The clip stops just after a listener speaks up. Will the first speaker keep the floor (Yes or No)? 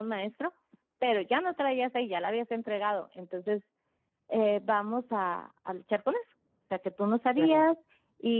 Yes